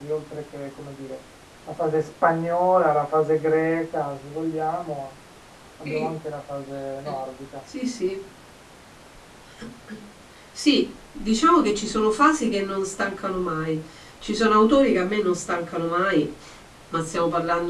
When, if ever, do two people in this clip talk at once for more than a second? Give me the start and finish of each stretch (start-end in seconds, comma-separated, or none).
none